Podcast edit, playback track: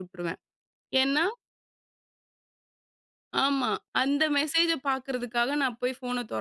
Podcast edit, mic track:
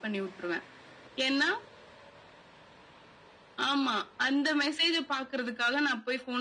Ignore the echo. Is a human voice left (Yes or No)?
No